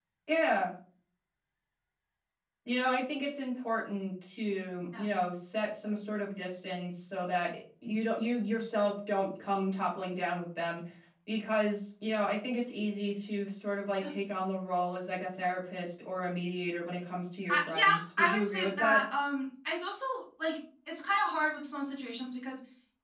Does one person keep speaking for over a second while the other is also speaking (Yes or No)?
Yes